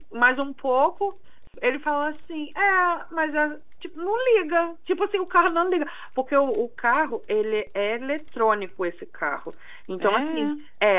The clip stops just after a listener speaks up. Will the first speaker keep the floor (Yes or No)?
Yes